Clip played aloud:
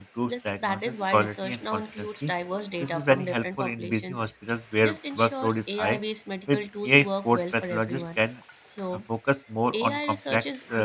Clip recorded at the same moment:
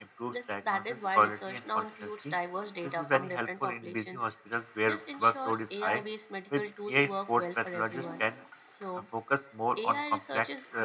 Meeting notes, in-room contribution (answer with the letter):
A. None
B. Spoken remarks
B